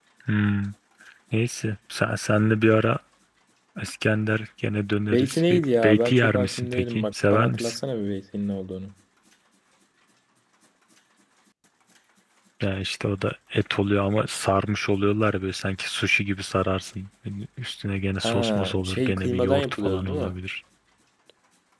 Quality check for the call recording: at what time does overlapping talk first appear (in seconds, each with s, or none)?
5.1 s